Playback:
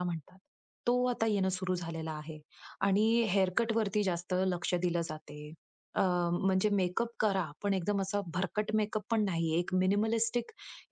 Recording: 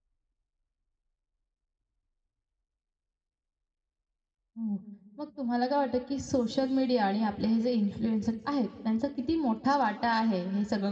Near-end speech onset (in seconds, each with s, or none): 4.6 s